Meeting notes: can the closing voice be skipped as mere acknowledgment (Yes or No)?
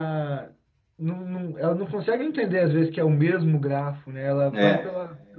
Yes